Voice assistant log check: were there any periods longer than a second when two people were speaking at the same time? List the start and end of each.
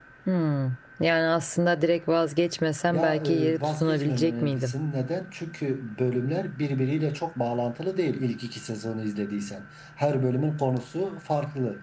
2.9-4.7

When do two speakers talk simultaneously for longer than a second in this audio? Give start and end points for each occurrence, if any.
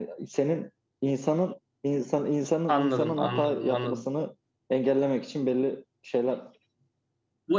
2.7-4.0

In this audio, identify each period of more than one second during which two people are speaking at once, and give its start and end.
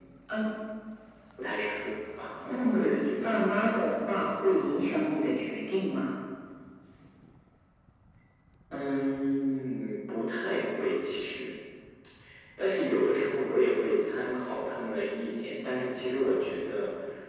2.5-3.7

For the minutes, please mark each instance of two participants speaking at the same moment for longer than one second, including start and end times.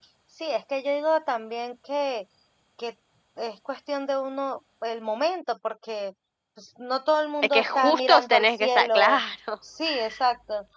7.4-9.0

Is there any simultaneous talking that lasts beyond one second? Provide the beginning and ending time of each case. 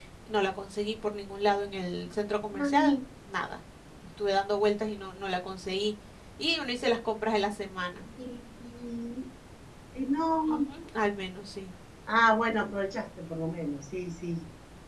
none

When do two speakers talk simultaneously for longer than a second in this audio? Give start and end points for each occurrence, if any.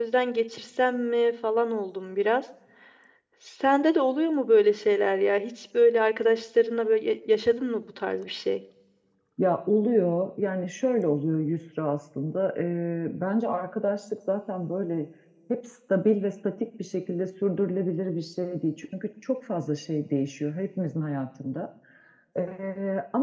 none

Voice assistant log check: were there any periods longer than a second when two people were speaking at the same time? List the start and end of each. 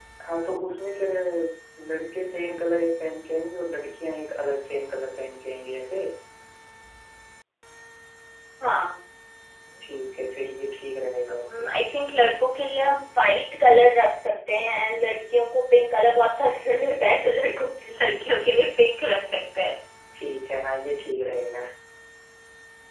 none

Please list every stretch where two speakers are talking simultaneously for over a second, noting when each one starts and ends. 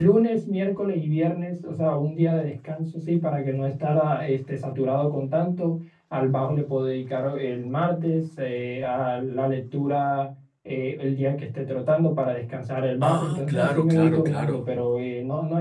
13.0-14.6

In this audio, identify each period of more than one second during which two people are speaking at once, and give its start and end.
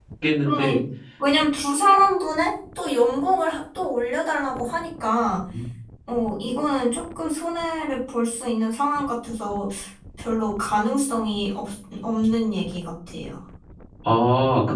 none

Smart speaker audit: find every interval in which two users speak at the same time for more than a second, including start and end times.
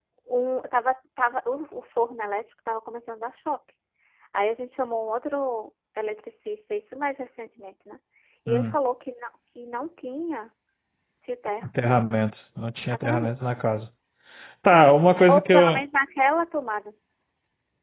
none

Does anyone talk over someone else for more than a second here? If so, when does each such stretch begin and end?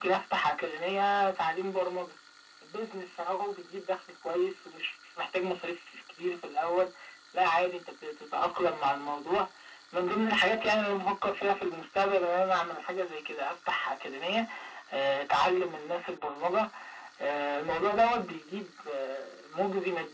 none

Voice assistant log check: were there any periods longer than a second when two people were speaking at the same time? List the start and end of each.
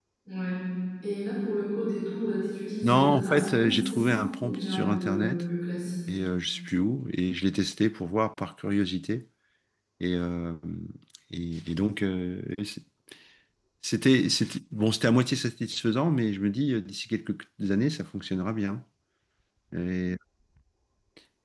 2.8-5.4

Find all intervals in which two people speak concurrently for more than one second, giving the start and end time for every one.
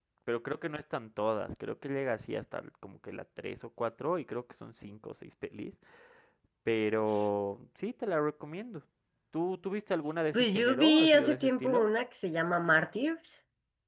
10.3-11.9

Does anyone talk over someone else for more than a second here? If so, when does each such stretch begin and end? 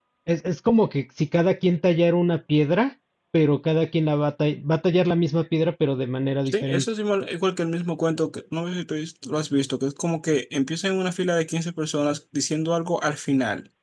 none

